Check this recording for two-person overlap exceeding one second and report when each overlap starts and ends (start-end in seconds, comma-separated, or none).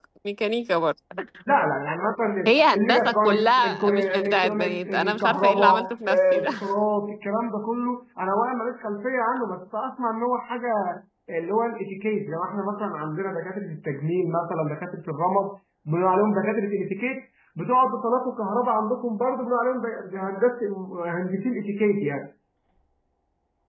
2.5-6.5